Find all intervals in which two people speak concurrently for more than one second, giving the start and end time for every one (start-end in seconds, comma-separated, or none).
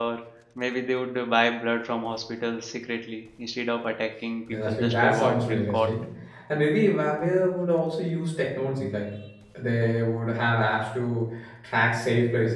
4.7-5.9